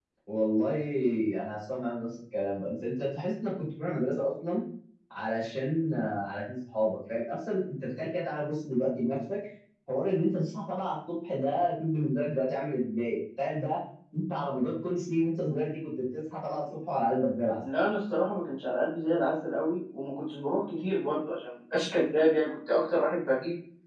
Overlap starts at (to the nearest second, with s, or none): none